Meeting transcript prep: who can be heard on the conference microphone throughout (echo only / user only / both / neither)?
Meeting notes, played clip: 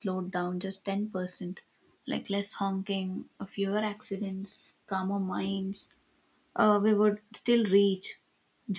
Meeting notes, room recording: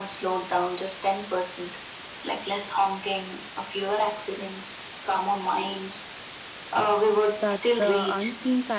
both